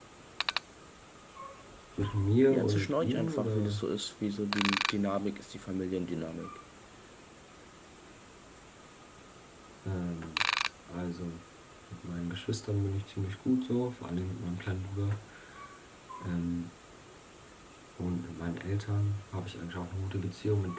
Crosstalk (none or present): present